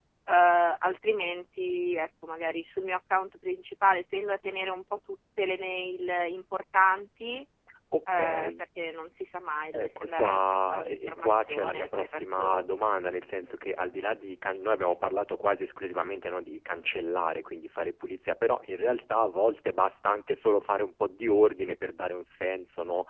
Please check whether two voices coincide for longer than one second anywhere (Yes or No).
Yes